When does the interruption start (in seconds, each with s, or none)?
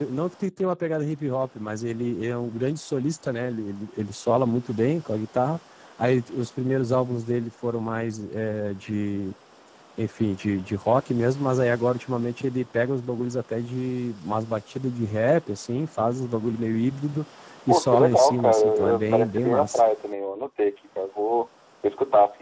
17.7 s